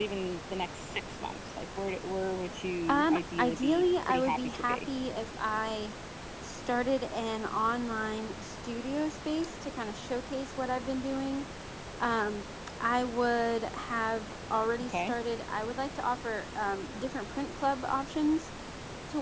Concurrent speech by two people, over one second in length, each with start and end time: 2.9-4.8

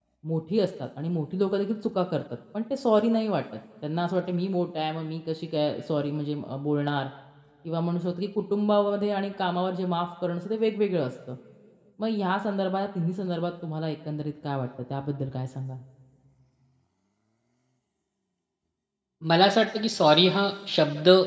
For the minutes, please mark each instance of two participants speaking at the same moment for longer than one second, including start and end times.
none

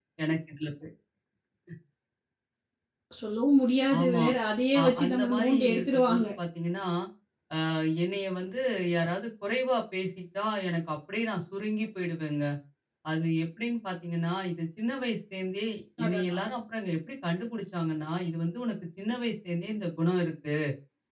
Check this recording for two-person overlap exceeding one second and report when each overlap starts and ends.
4.8-6.2

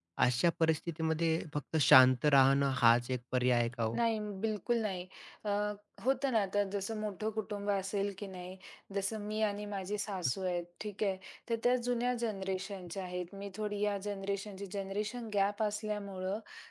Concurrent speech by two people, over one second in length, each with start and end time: none

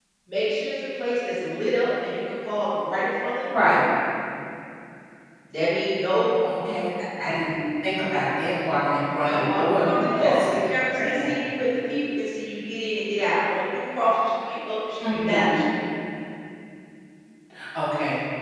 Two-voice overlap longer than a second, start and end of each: 9.2-10.5

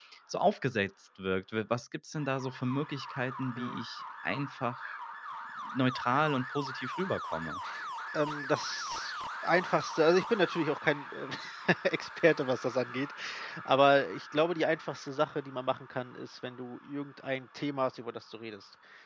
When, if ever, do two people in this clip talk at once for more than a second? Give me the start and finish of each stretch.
none

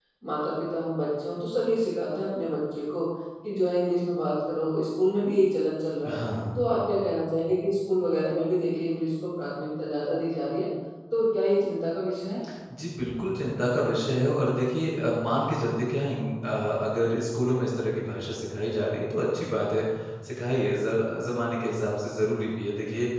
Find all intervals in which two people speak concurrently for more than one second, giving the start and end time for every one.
none

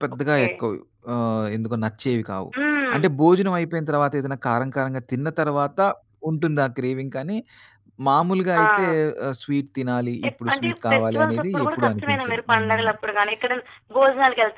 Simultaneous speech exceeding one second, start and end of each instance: 10.3-12.9

